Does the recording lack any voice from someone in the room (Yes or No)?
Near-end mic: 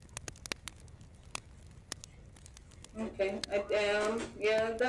Yes